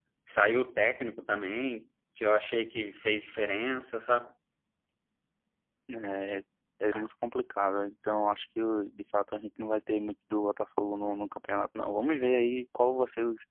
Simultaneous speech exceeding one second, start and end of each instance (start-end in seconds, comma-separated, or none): none